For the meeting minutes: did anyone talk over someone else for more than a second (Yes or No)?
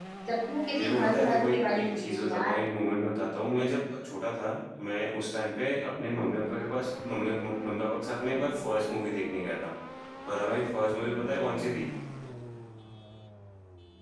Yes